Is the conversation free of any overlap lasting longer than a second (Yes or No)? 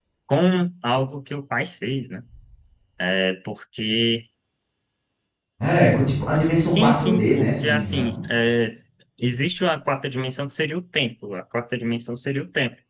No